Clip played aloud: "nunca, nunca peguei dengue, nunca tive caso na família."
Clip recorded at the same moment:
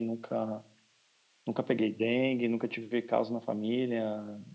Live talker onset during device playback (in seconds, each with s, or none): none